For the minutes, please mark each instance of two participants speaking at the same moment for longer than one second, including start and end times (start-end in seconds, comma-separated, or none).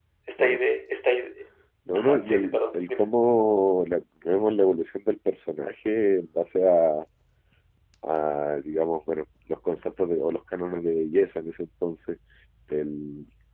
1.9-3.1